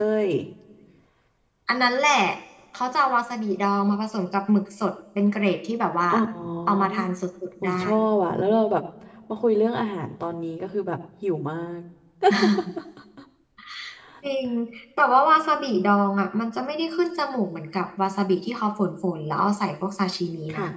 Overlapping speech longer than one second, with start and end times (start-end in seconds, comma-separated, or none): none